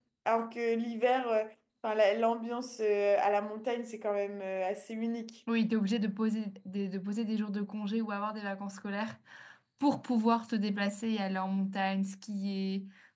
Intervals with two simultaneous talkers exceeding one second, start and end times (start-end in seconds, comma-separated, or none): none